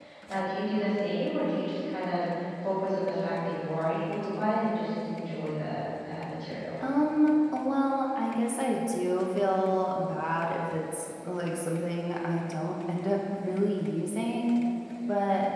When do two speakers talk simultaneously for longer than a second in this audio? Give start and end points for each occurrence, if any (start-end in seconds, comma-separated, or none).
none